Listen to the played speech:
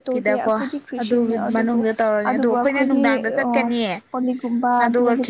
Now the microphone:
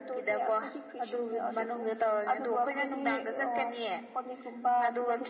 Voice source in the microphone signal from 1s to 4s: echo only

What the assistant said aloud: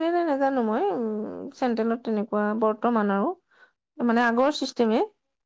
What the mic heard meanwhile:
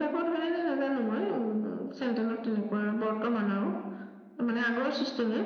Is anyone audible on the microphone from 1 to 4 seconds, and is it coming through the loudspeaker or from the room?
echo only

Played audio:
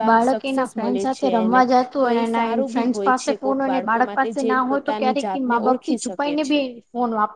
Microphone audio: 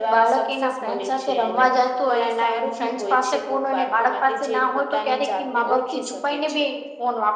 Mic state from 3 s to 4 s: echo only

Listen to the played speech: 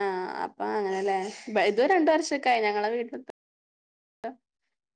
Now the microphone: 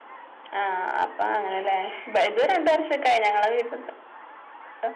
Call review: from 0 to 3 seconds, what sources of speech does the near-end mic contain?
echo only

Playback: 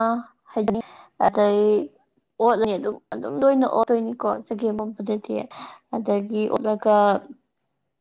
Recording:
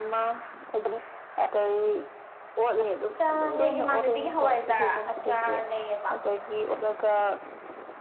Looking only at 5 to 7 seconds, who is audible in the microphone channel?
both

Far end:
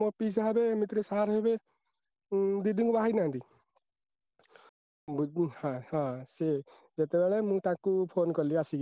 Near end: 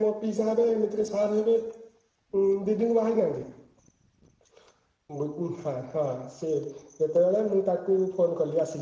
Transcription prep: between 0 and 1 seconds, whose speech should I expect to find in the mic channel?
echo only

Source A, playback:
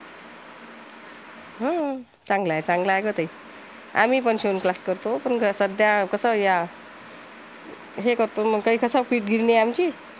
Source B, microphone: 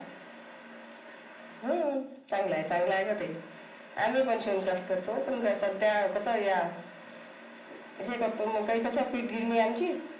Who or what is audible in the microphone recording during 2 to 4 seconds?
echo only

